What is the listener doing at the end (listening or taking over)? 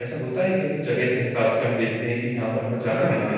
taking over